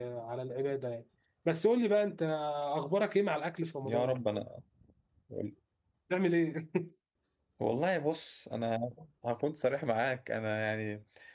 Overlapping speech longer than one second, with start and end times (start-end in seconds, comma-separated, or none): none